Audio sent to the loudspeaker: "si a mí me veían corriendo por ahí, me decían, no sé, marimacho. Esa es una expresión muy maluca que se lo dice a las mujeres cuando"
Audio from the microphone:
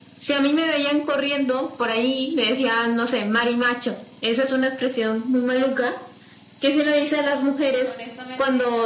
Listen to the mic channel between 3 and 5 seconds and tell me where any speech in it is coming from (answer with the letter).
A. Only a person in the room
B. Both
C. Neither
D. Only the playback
D